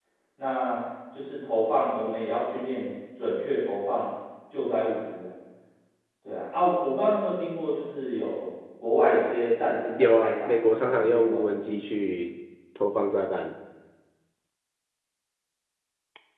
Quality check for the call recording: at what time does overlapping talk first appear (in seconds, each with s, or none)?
10.0 s